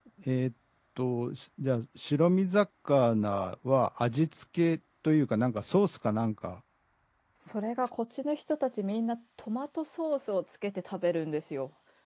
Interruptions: none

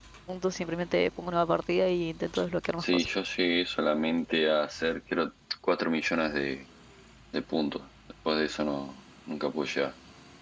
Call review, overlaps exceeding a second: none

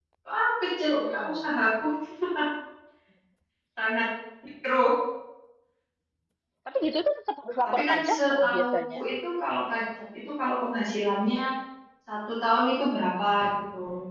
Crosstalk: present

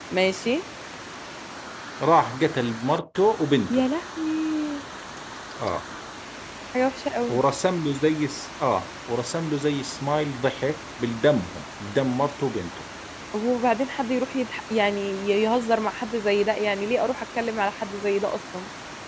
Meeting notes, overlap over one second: none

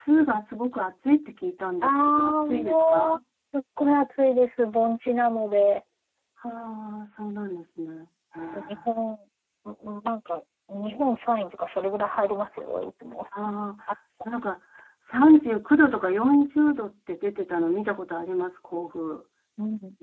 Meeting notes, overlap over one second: present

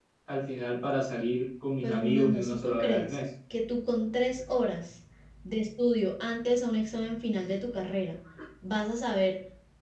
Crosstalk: present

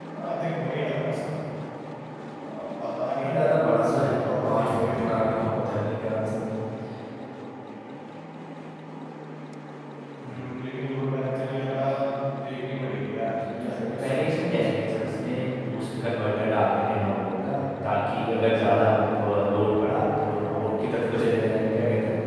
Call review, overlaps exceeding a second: present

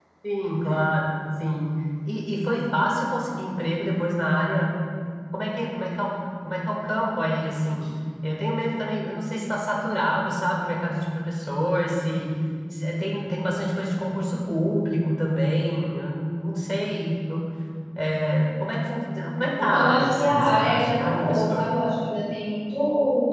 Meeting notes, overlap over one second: present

